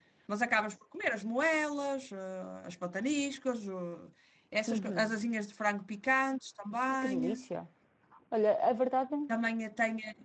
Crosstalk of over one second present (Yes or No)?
No